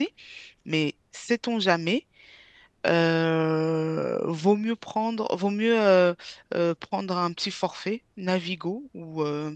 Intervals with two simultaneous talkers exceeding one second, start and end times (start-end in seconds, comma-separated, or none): none